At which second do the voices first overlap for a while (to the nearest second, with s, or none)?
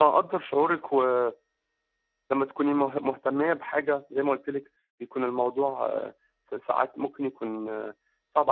none